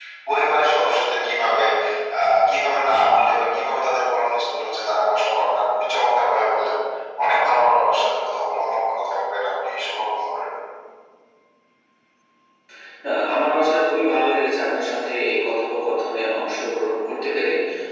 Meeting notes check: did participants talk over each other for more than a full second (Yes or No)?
No